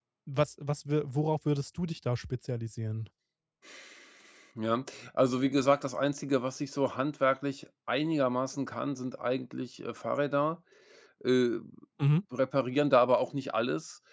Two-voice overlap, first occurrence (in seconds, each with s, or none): none